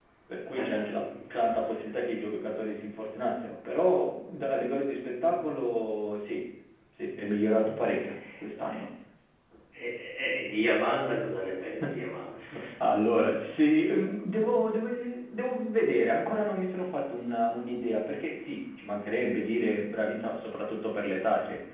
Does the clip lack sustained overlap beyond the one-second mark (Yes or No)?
No